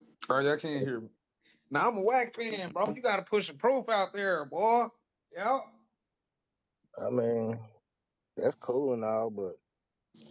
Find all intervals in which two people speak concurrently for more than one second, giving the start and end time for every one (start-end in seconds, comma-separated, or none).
none